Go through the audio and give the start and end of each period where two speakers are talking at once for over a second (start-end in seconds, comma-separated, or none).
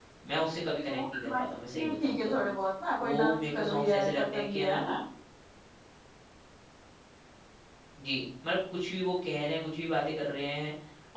0.9-2.3, 3.0-4.8